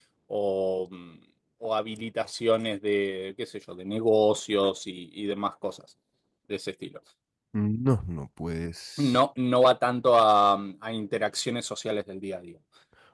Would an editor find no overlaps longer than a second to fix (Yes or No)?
Yes